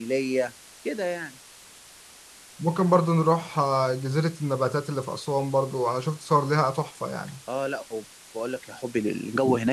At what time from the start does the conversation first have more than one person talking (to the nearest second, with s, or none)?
none